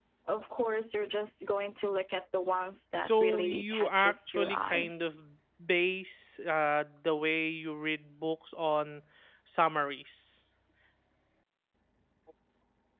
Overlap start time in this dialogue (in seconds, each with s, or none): 3.0 s